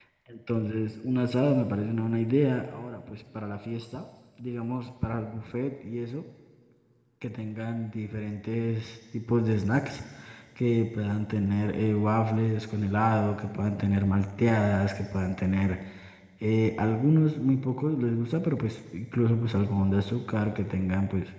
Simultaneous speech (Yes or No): No